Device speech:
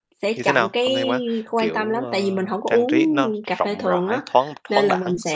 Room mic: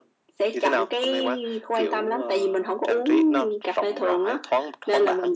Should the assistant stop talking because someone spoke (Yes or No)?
No